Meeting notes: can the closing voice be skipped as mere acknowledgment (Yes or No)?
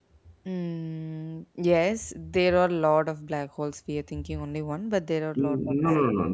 No